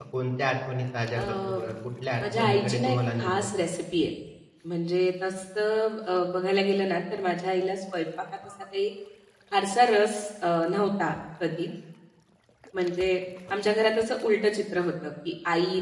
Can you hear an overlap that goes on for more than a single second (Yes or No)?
Yes